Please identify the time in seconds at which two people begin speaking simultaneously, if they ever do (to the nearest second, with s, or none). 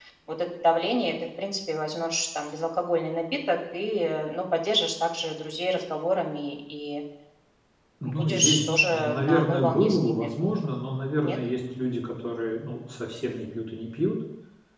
8 s